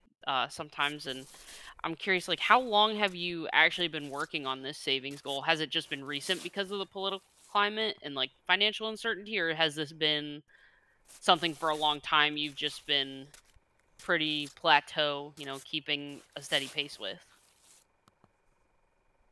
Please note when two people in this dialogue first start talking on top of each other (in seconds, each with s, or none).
none